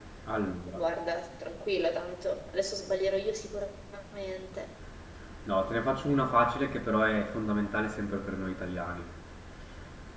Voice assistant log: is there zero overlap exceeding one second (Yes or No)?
Yes